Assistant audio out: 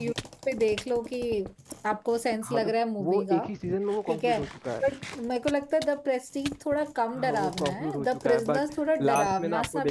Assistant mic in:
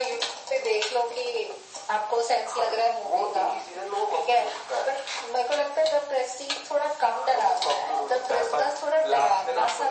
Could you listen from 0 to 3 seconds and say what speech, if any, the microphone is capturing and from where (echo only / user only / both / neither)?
echo only